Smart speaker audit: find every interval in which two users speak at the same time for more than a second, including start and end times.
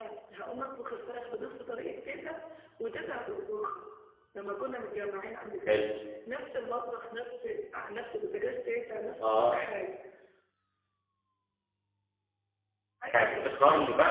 none

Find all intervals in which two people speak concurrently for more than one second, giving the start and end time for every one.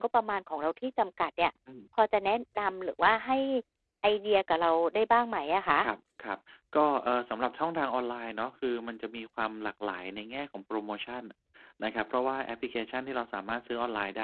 none

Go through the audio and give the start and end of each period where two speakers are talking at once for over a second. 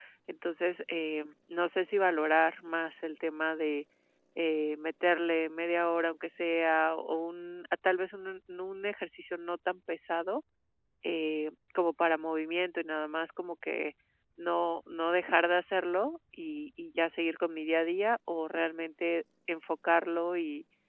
none

